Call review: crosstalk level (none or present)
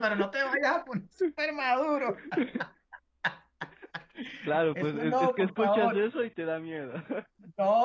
present